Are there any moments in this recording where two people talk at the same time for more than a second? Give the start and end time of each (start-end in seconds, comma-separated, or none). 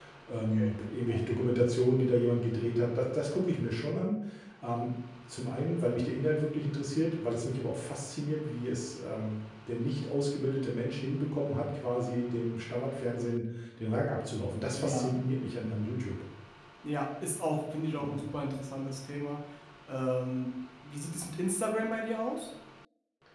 none